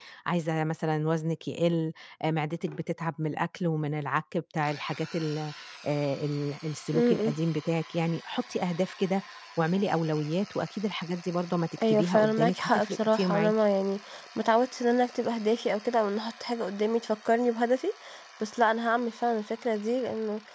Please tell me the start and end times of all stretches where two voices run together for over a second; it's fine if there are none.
11.8-13.5

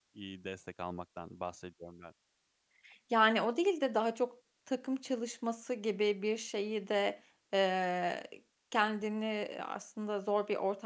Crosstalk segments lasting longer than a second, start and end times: none

